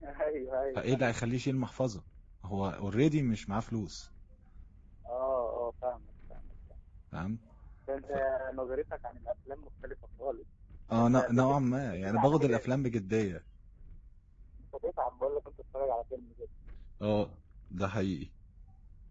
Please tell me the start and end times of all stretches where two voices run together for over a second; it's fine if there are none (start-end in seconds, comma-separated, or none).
11.0-12.5